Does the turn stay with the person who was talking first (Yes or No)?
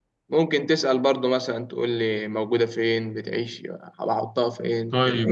No